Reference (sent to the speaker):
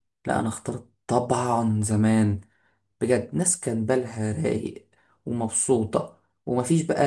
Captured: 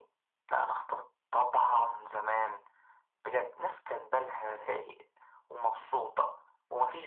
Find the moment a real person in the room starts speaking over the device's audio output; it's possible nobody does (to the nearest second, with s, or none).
none